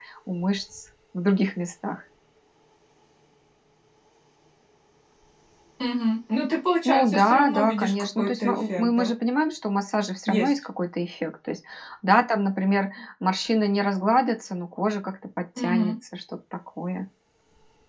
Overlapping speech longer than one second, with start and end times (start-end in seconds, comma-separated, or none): 6.8-9.1